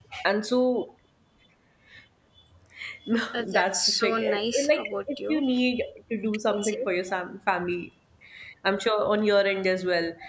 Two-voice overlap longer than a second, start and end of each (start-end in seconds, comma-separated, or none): 3.3-5.4